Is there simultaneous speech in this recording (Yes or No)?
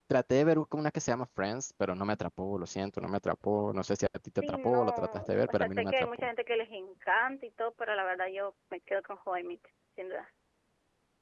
Yes